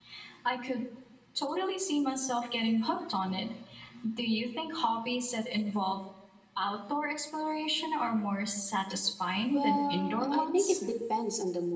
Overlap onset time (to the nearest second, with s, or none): 9 s